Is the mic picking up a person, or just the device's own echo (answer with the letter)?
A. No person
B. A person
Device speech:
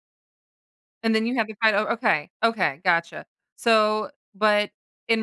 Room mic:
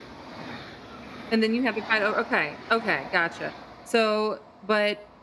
A